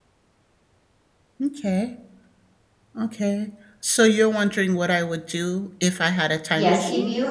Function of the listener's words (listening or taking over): taking over